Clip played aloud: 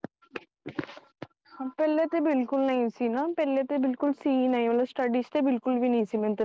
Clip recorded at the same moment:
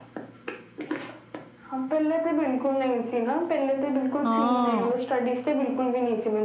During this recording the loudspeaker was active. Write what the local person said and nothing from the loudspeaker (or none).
ਹਾਂ।